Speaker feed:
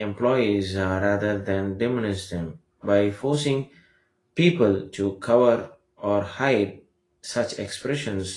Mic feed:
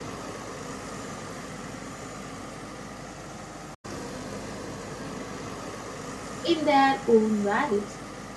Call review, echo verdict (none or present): none